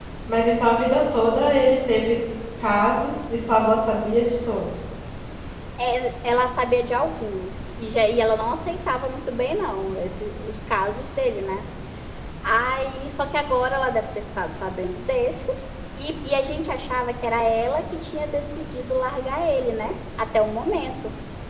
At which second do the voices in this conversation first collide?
none

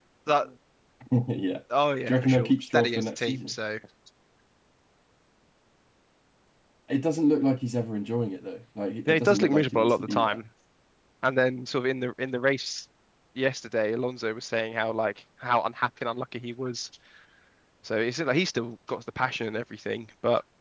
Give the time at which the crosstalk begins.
2.1 s

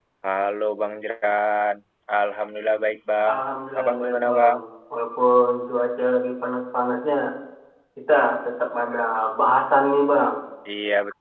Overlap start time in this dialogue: 3.2 s

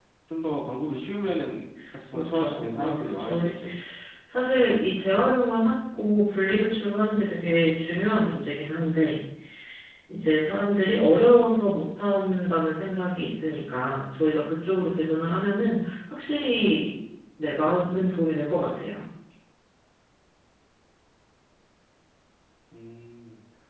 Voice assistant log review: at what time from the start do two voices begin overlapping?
2.1 s

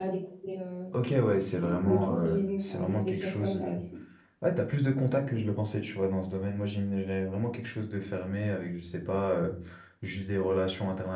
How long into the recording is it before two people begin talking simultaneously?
1.8 s

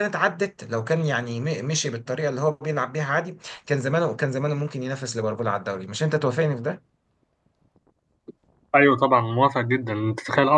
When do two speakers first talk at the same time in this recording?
none

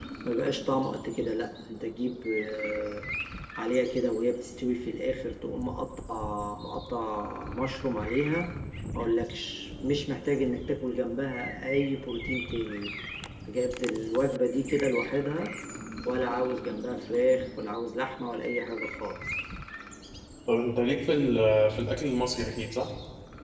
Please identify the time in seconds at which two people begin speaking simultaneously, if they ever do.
none

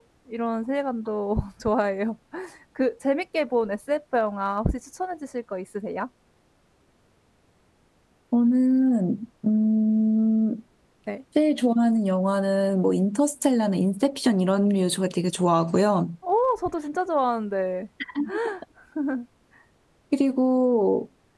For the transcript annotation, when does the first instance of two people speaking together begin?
none

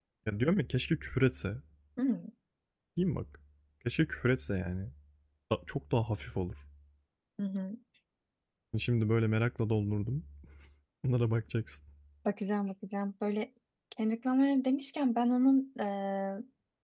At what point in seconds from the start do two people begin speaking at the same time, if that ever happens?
none

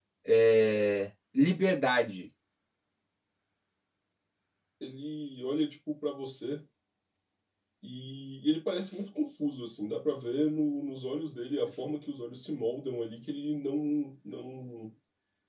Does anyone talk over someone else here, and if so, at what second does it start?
none

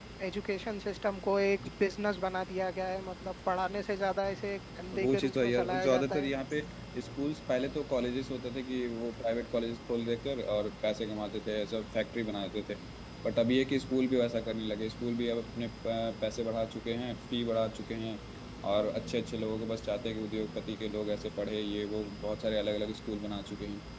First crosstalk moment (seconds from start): 4.9 s

